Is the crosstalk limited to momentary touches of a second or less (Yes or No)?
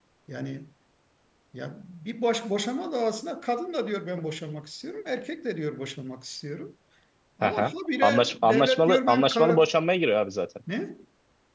No